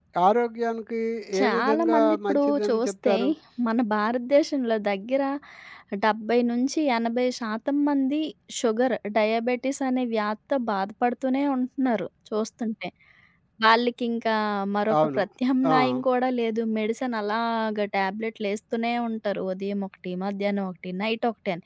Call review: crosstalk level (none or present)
present